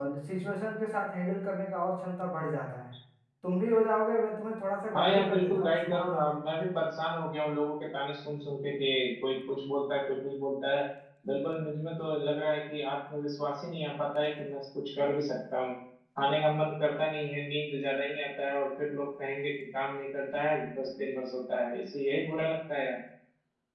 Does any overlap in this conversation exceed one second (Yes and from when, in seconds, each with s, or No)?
Yes, from 4.9 s